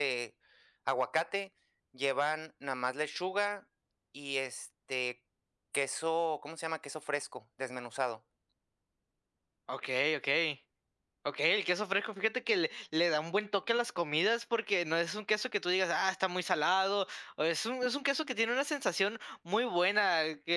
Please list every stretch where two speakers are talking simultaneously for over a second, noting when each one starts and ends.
none

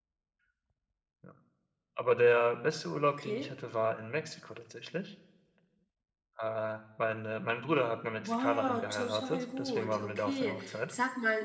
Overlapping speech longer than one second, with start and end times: 8.2-10.9

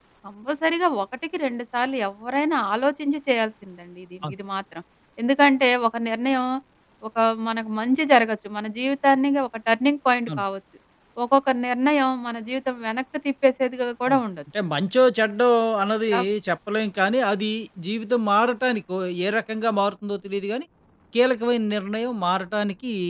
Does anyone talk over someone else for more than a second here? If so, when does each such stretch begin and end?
none

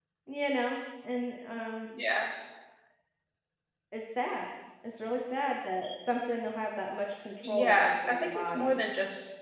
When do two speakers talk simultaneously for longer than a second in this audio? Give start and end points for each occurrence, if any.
7.5-8.8

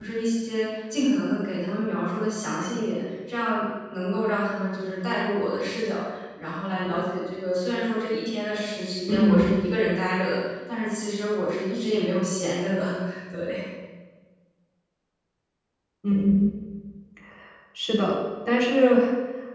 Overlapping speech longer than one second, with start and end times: none

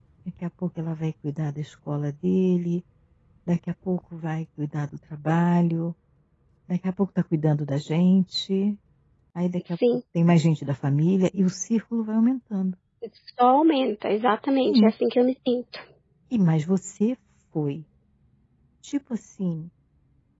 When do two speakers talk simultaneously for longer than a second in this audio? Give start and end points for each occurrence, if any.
none

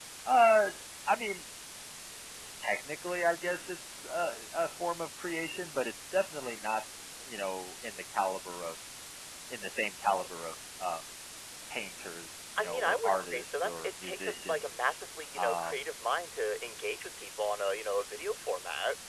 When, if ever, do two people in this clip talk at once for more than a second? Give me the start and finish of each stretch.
12.6-14.9

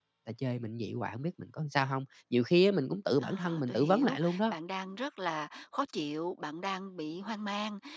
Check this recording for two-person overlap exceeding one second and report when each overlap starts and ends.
3.2-4.6

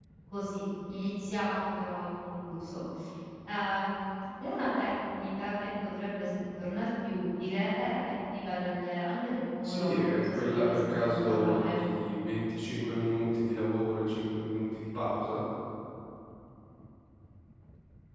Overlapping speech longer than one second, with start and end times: 9.6-11.8

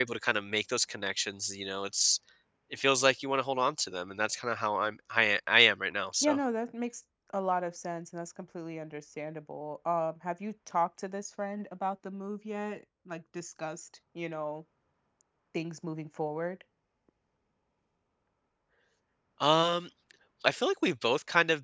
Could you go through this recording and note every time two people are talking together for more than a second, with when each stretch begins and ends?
none

